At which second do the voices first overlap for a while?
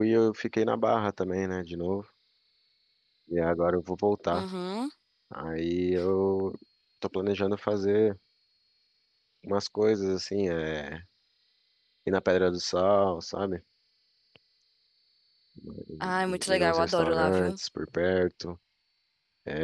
16.0 s

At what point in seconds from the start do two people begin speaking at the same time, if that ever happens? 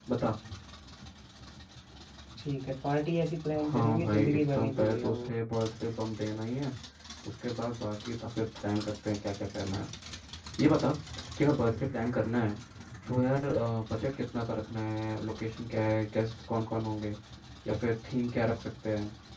3.6 s

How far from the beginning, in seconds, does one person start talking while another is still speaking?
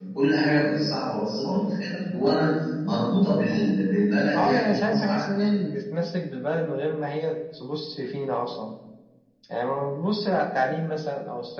4.3 s

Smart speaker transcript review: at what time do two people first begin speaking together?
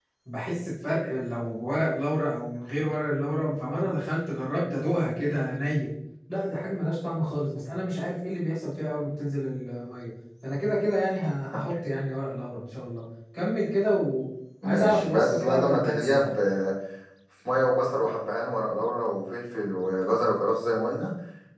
14.6 s

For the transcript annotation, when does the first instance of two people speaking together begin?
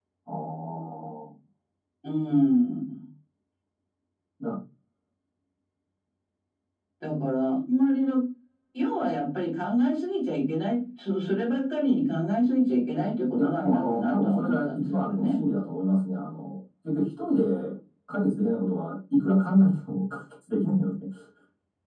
13.4 s

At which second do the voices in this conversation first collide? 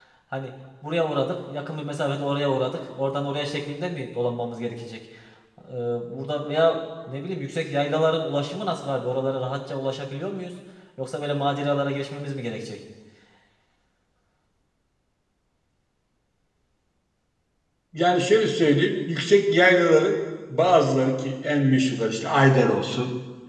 none

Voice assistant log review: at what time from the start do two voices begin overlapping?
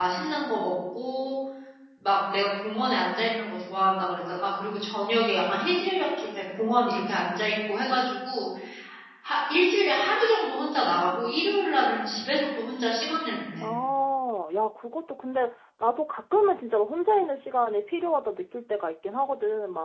none

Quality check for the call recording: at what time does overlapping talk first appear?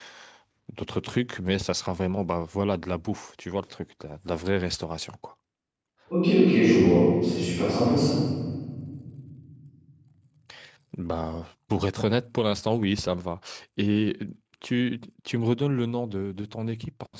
none

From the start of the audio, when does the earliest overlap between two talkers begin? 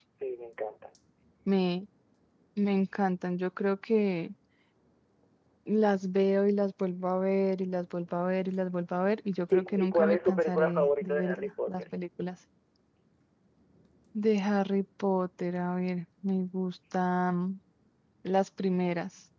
9.5 s

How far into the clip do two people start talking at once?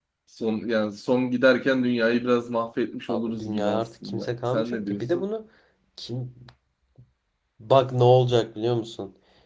3.1 s

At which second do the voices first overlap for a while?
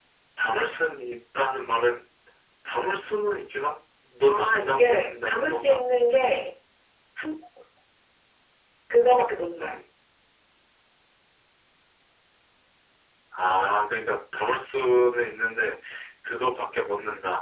4.3 s

